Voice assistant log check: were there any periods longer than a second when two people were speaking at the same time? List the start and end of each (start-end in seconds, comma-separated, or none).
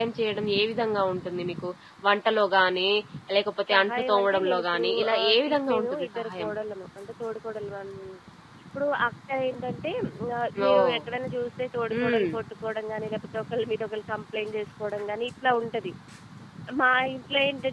3.7-6.5